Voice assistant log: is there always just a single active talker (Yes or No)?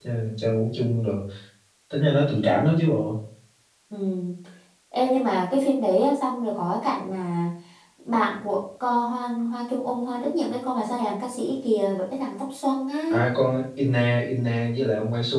Yes